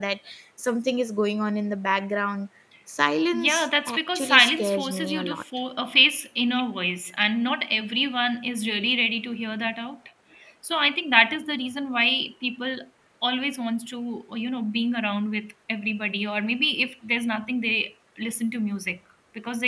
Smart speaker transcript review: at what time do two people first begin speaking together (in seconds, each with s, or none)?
3.3 s